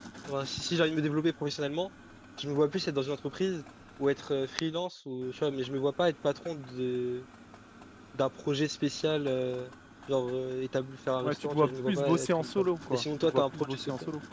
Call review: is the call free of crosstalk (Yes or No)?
No